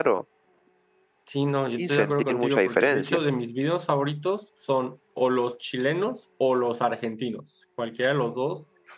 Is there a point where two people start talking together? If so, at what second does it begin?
1.8 s

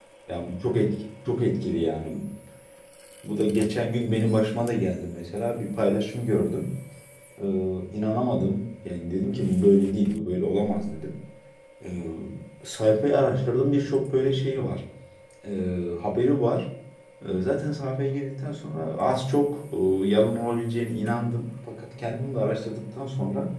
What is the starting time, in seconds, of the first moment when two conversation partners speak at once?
none

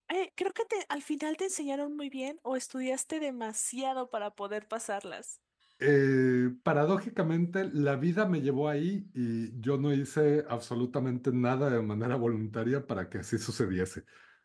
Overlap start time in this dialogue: none

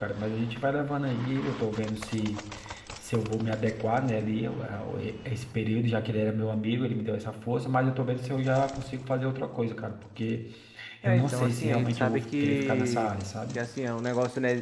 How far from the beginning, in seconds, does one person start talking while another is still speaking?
11.0 s

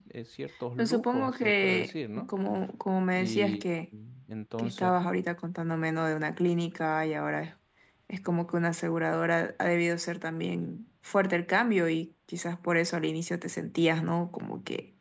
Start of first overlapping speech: 0.8 s

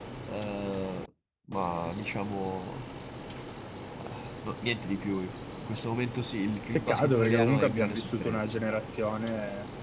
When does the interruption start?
6.8 s

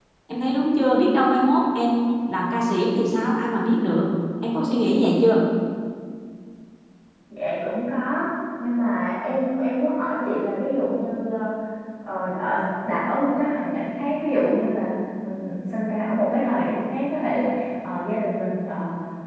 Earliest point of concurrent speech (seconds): none

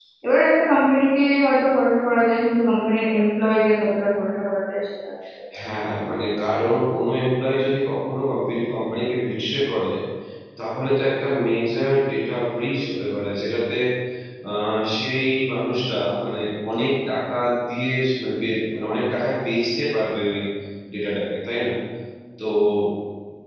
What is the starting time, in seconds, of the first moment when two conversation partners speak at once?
none

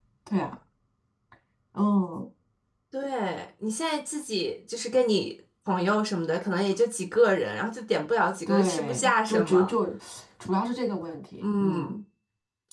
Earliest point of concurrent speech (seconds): 8.5 s

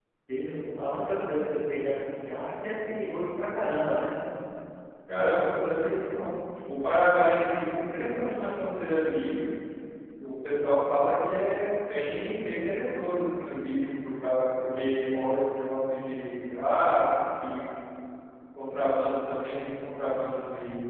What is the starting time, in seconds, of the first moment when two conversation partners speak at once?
none

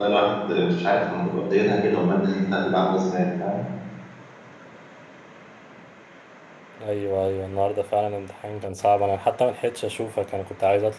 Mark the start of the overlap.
none

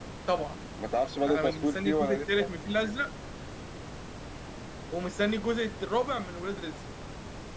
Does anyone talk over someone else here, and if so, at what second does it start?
1.3 s

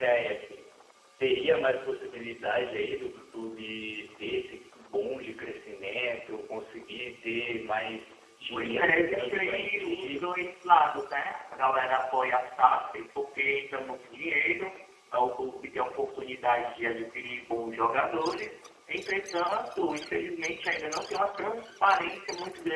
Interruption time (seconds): 8.5 s

